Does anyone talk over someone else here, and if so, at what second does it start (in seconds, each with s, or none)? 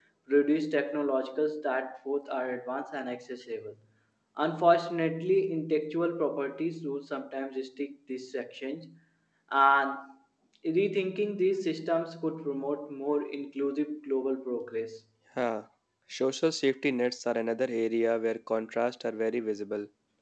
none